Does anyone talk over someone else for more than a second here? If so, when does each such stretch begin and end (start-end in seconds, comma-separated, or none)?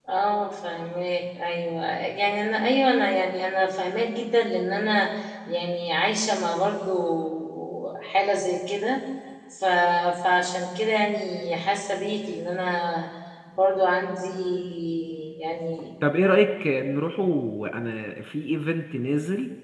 none